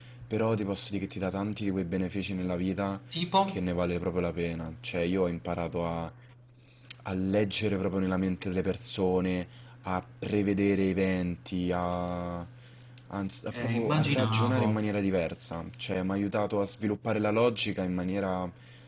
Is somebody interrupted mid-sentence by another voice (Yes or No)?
Yes